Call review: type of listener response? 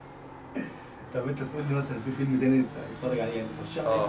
taking over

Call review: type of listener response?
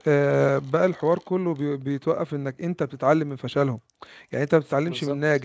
listening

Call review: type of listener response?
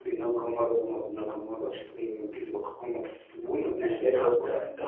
taking over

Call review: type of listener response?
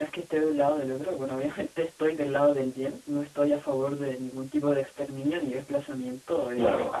listening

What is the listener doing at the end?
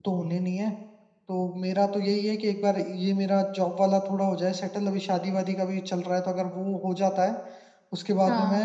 listening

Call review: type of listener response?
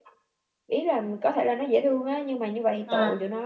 listening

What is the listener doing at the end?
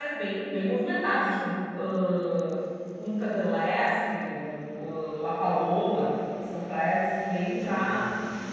listening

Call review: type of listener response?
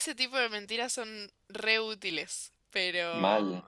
listening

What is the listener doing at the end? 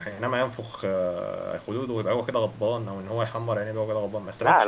taking over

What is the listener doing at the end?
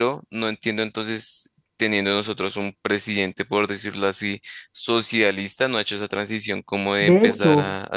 taking over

